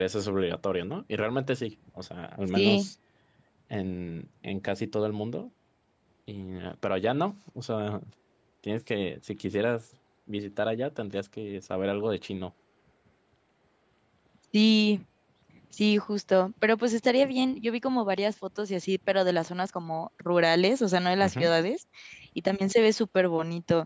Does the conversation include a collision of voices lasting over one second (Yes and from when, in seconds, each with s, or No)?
No